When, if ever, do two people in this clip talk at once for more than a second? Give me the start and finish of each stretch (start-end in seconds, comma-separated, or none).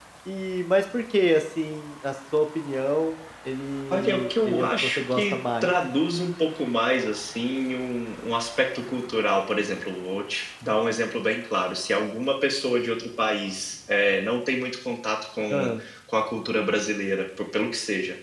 3.9-5.7